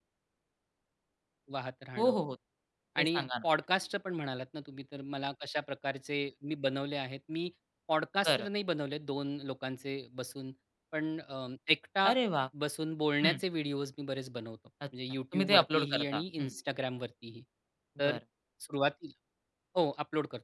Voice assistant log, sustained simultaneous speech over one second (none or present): present